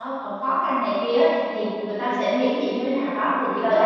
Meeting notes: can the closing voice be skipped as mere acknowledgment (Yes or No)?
No